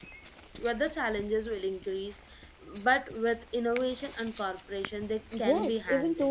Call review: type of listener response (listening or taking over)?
taking over